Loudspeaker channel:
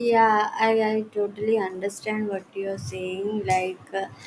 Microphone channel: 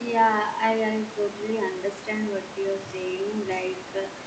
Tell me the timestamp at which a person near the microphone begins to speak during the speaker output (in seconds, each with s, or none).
none